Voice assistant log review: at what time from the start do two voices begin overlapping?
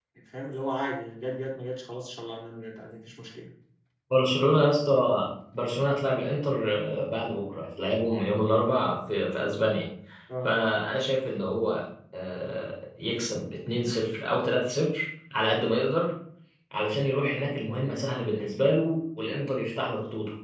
none

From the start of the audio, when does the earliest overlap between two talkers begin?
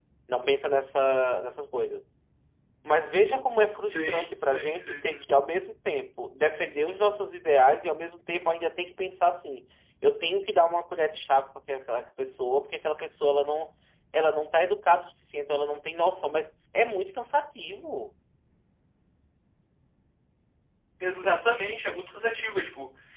3.8 s

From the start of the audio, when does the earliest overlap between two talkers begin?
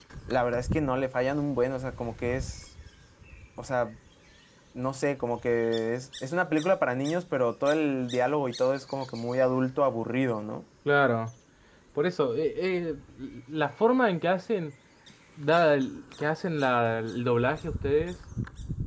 none

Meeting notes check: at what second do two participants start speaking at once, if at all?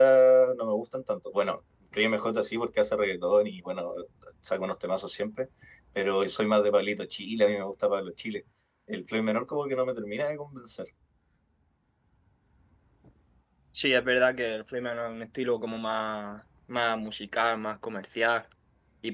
none

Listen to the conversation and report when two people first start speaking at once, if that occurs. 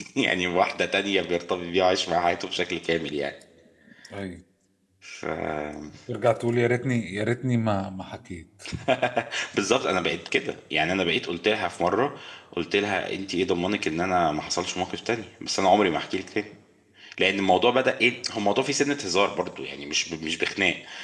none

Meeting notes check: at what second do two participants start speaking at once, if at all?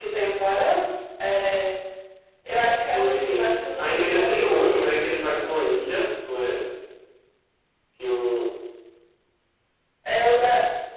2.9 s

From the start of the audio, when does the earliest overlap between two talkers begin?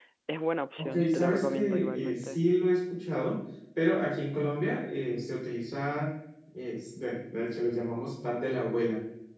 0.8 s

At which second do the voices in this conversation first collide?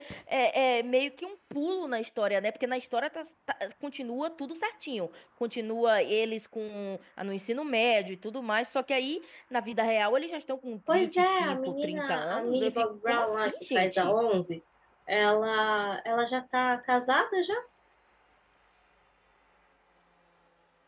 10.9 s

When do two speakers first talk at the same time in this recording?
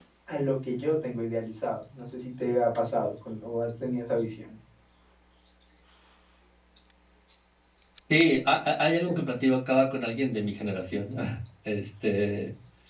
none

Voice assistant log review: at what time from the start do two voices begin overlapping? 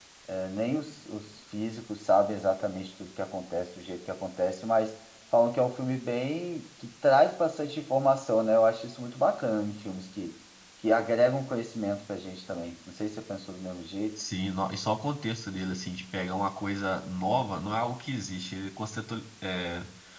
none

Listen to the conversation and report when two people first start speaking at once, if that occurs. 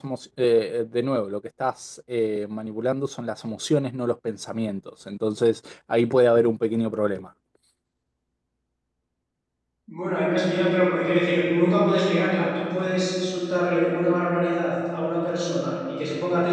none

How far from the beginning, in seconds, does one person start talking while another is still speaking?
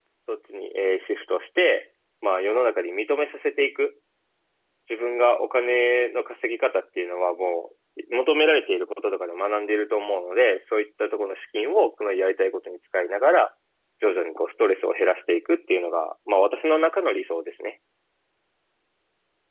none

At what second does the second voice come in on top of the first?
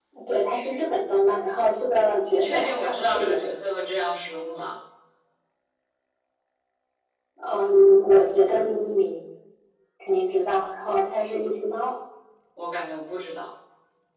2.3 s

